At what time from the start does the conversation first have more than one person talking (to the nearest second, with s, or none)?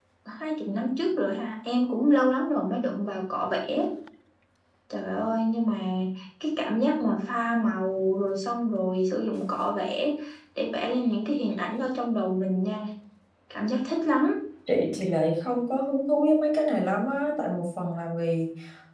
none